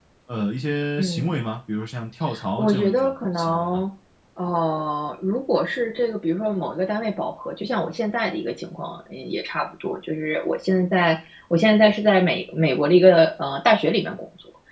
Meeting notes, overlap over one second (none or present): present